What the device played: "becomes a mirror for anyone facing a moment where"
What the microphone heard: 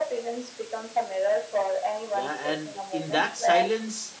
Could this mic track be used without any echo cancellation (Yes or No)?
No